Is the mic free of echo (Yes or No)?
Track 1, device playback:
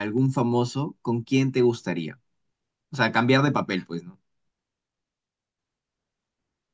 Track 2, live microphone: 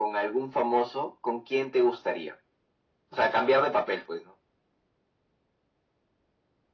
No